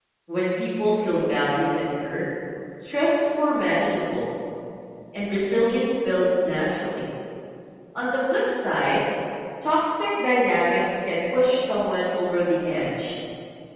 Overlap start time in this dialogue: none

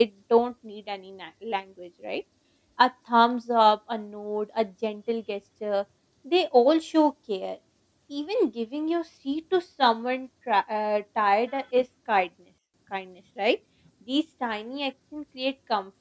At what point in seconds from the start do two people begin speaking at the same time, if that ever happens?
none

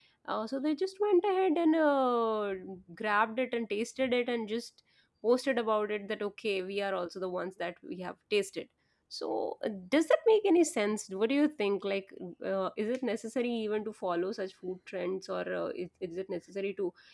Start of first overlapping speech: none

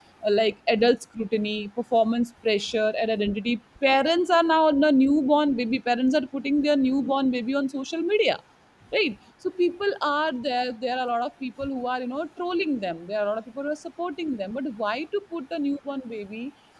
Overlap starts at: none

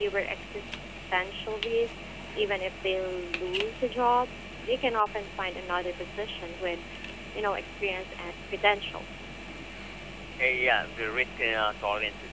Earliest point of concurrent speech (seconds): none

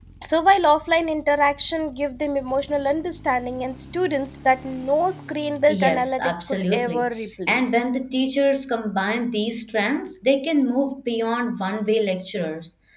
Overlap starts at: 5.7 s

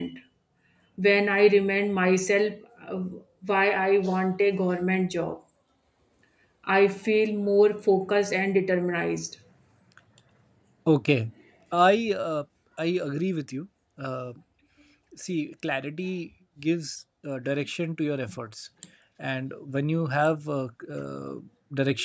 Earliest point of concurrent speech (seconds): none

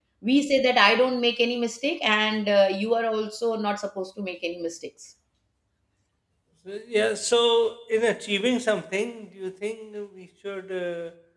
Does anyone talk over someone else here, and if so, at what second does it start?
none

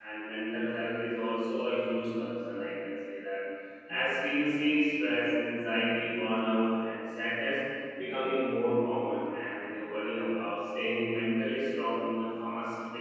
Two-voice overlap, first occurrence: none

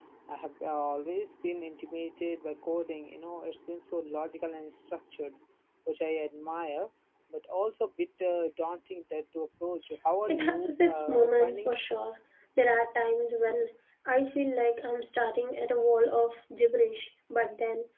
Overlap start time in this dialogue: 10.3 s

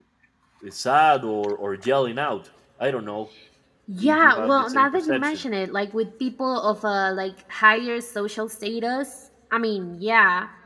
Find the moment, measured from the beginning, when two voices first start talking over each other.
4.0 s

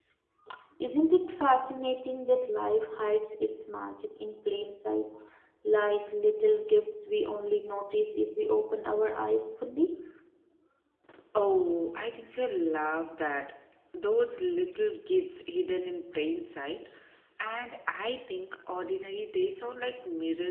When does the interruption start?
none

